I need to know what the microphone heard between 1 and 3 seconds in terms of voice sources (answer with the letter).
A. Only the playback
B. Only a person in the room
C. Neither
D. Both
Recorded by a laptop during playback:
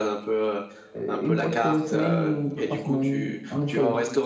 D